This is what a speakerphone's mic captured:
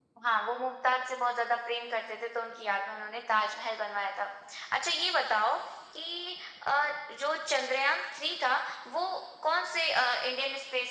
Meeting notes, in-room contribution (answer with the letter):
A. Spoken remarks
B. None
B